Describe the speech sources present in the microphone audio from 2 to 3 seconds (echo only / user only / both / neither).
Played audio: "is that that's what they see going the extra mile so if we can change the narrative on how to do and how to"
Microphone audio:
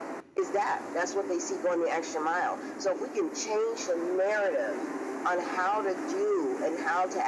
echo only